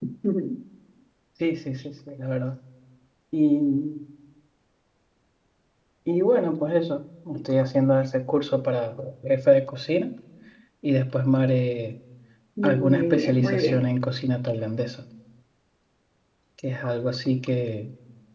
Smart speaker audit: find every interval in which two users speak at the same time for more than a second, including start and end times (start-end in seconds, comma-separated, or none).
12.6-13.8